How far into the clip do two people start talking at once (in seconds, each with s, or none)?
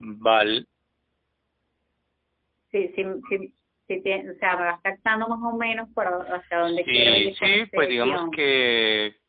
6.6 s